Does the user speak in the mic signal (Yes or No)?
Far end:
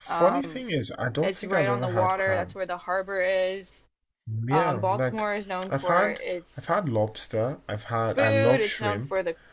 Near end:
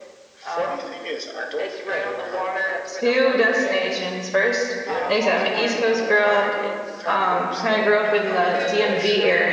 Yes